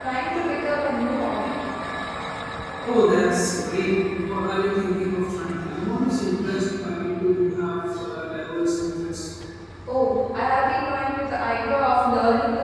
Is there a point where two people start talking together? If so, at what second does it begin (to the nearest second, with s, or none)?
none